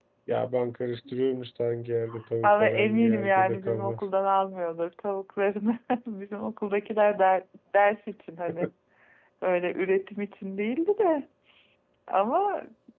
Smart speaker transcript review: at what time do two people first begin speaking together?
2.4 s

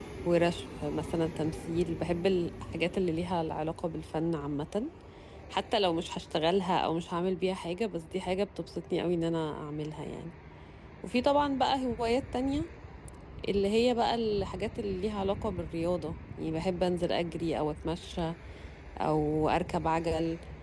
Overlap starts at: none

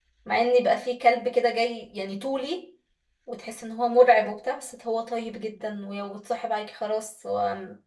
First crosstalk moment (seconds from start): none

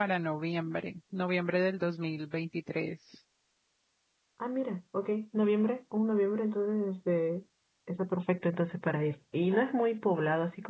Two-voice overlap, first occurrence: none

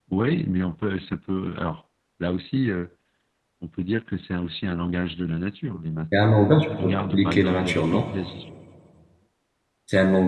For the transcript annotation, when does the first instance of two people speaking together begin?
6.8 s

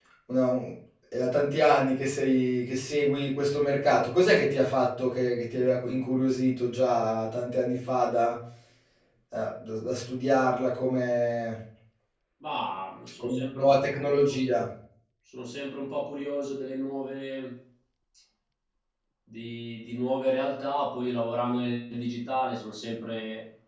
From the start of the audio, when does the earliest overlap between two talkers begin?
13.2 s

